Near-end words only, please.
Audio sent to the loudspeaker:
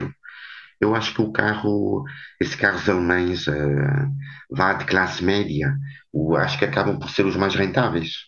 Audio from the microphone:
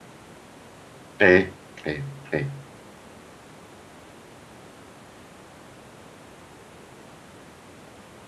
é, é, é.

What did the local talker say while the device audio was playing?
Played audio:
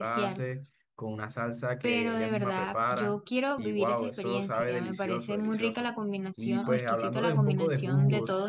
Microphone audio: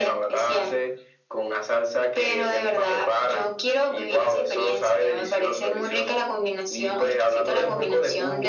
none

